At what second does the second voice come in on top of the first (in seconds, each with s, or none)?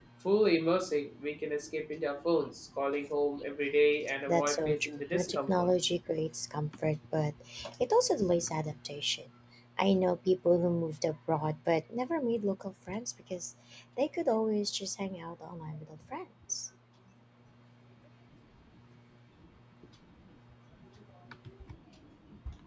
4.3 s